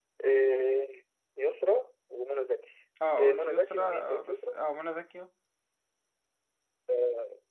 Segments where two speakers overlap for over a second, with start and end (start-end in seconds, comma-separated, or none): 3.2-4.6